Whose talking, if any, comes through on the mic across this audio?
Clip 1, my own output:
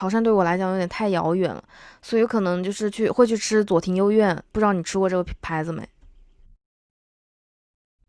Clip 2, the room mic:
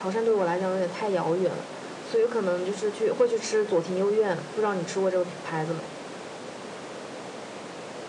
echo only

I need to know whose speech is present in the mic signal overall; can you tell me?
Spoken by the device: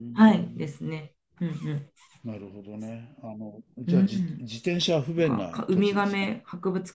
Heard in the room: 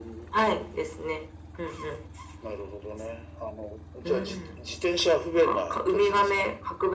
echo only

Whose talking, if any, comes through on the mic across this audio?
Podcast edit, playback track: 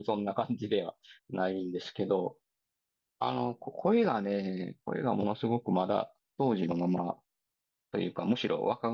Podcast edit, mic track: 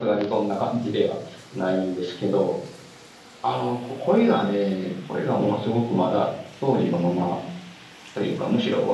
echo only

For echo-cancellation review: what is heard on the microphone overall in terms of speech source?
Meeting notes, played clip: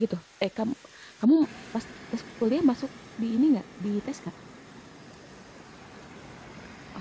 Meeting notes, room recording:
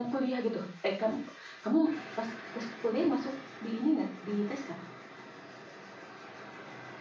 echo only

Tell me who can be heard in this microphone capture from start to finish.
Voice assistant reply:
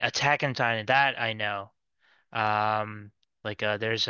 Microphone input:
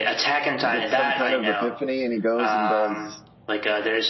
both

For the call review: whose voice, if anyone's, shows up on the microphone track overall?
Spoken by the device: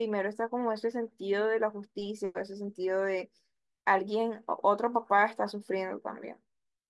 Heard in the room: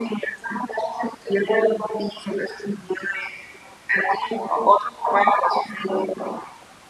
echo only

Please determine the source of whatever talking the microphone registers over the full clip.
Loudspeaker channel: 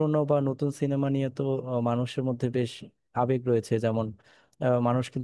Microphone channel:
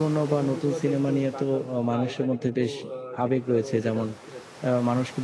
both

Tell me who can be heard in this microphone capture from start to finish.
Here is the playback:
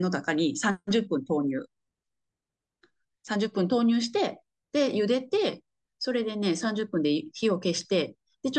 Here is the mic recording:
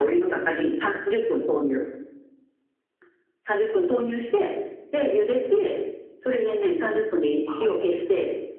both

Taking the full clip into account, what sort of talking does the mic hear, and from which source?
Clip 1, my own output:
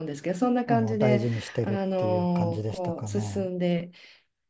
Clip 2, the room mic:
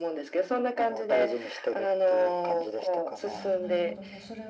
both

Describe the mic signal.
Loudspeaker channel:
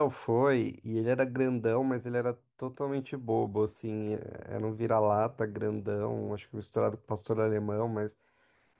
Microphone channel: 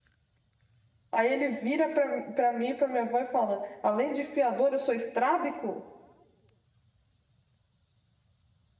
user only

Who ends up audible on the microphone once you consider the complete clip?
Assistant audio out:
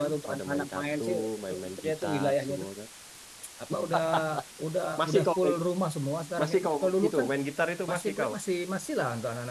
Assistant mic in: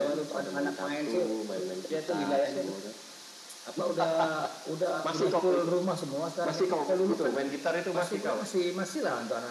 echo only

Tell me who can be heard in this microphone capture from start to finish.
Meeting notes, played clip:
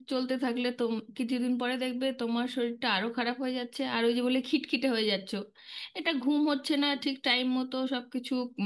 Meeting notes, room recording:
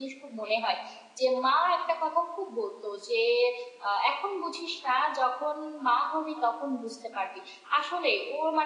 user only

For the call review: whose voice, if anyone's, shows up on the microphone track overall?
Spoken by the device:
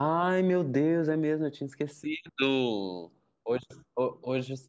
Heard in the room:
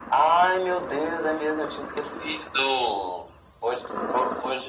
echo only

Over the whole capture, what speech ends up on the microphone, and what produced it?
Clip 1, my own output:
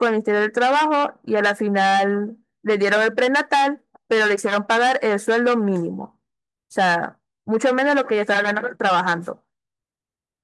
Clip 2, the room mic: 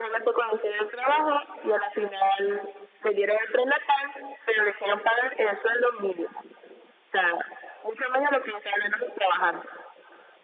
echo only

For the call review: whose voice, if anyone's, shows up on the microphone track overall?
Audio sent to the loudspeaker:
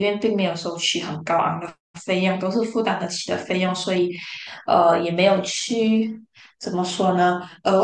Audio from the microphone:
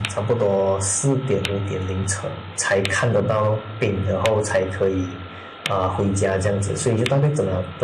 user only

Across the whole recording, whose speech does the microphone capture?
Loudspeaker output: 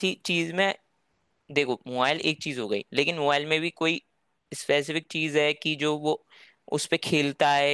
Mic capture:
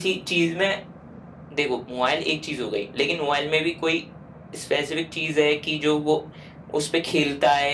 echo only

